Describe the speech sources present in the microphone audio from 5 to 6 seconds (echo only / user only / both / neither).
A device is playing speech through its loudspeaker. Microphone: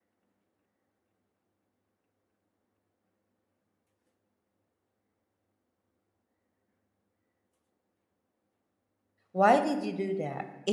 neither